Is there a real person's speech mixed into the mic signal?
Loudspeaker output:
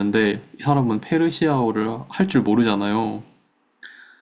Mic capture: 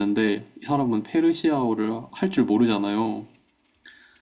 No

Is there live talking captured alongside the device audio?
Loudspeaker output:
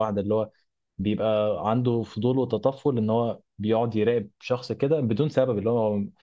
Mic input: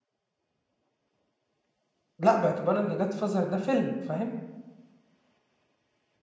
Yes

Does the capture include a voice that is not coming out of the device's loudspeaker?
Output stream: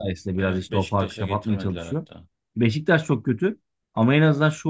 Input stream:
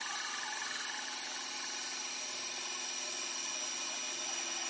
No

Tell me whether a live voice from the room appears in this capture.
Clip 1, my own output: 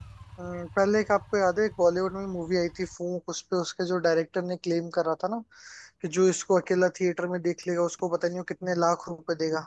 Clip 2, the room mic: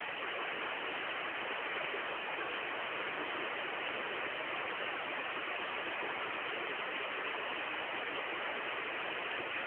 No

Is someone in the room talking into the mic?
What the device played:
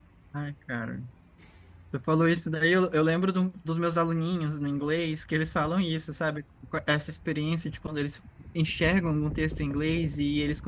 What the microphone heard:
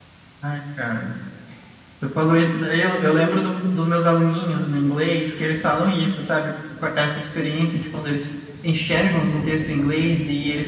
No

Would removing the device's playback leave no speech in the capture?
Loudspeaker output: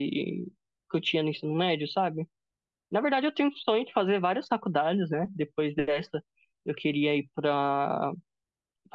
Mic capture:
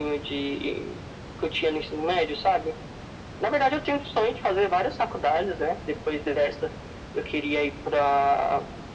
Yes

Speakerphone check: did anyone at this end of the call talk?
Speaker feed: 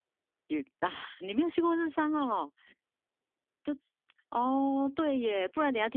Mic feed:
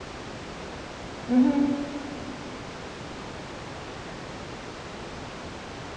Yes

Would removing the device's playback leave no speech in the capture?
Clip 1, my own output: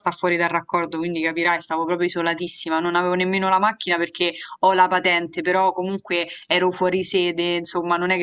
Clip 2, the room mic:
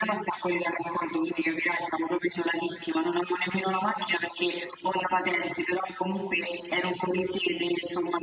Yes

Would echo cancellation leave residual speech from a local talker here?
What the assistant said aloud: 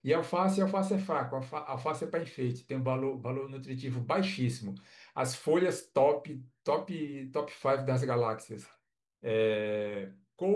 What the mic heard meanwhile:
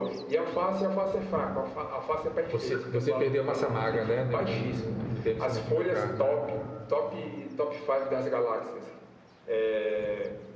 Yes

